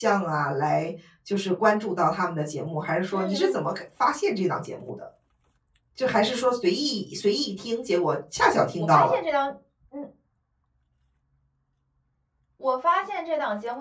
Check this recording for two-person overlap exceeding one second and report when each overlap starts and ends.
none

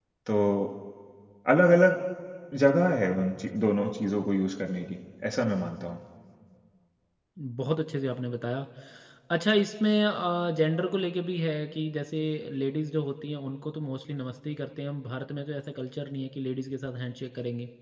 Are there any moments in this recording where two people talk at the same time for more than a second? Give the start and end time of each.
none

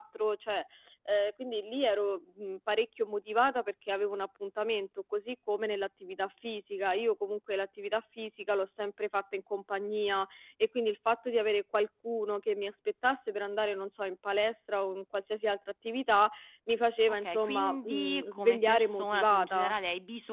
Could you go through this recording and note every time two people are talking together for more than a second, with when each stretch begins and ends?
17.2-19.8

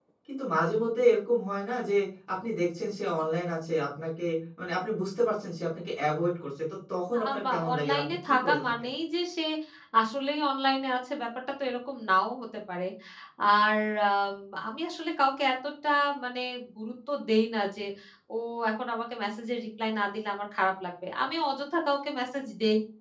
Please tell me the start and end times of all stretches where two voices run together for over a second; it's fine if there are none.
7.2-8.6

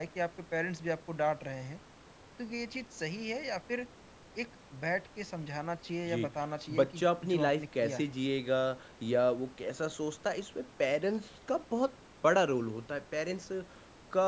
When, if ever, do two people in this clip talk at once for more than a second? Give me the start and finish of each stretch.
6.7-8.1

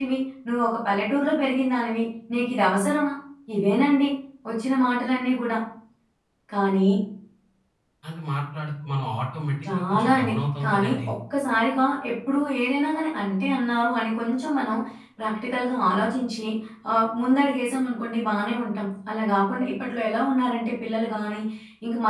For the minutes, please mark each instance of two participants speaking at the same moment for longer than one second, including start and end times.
9.7-11.1

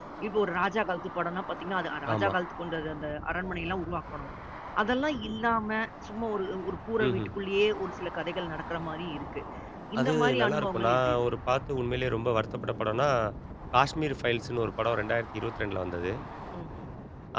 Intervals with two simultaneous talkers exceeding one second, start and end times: 10.0-11.2

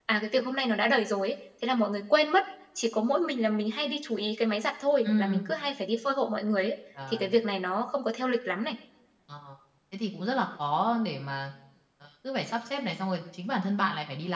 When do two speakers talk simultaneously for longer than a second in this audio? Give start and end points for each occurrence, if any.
none

